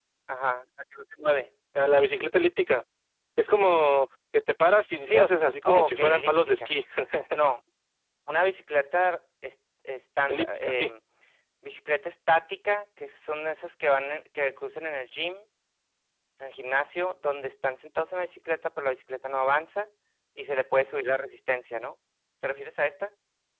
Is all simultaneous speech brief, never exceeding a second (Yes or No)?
No